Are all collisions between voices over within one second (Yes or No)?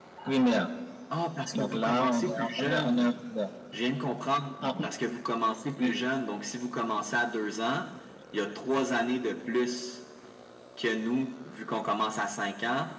No